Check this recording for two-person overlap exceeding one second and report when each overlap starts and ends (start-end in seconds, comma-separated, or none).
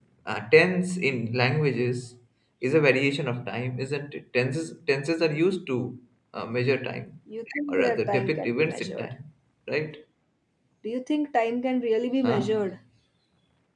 7.7-9.1